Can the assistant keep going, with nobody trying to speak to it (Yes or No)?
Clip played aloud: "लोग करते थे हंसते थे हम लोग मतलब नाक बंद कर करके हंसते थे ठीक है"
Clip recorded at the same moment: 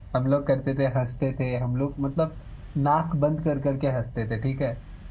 Yes